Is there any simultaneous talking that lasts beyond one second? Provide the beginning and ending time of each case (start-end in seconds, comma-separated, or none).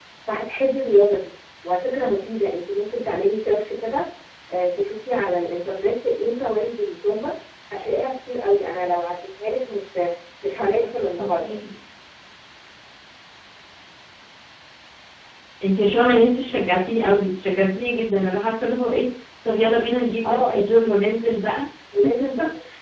none